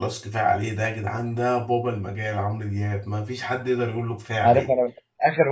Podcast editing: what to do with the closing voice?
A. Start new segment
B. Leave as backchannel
A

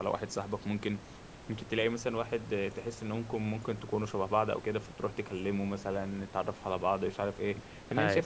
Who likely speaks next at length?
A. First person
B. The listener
A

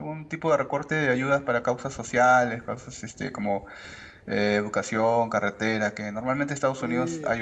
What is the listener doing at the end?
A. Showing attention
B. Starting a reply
B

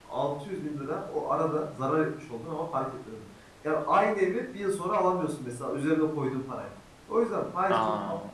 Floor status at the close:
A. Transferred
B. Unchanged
B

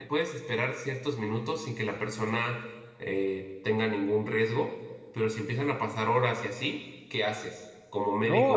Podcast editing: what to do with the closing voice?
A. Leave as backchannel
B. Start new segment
B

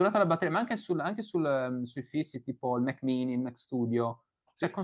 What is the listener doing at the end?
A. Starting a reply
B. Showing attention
B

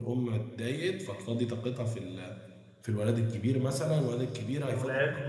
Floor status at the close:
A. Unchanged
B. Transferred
A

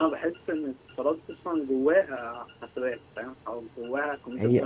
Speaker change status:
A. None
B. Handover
B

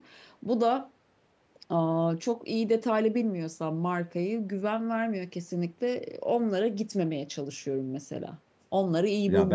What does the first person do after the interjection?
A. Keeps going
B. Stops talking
B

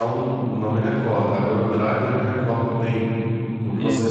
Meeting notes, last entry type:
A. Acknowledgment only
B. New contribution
A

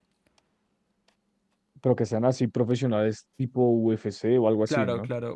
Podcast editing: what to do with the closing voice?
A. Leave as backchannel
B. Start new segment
B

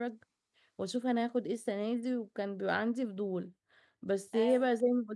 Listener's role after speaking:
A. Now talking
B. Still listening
B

